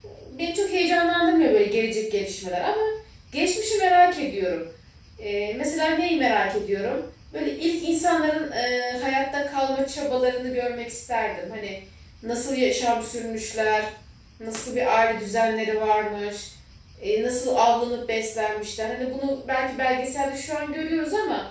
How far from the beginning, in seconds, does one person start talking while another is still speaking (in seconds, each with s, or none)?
none